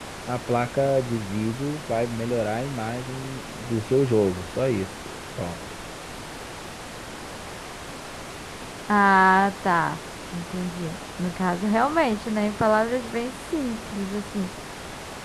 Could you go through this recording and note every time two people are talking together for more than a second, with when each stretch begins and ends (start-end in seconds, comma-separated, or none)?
none